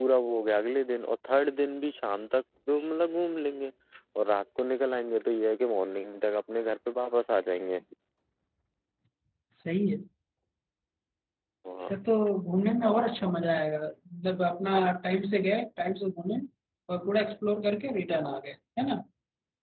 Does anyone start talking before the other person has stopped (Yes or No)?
No